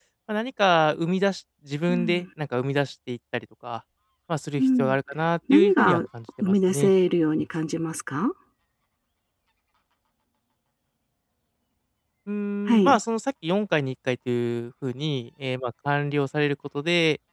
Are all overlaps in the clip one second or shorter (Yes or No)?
Yes